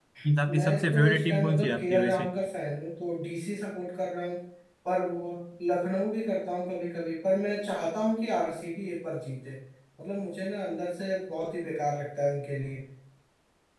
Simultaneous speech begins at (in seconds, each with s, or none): 0.6 s